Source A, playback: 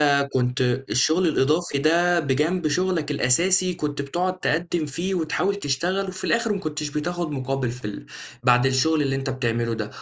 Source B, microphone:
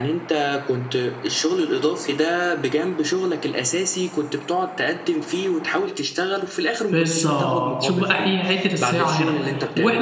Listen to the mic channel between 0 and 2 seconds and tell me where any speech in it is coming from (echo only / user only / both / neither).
echo only